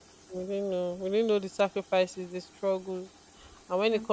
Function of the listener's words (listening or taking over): listening